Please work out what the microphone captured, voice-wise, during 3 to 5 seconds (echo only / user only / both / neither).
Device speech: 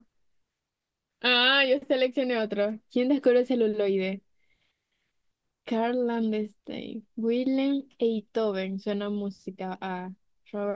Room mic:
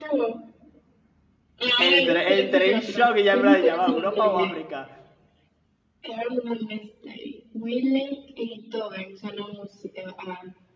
both